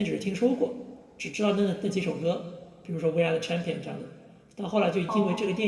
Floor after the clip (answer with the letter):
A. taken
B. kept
B